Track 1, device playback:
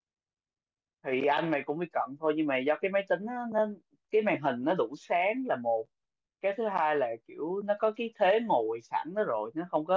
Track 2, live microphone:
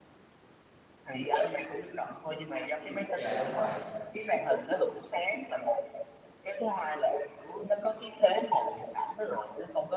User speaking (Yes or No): Yes